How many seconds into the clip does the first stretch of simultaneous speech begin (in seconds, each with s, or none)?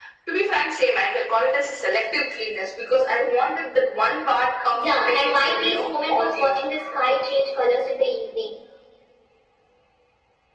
4.7 s